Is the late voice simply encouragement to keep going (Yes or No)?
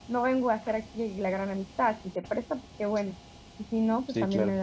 Yes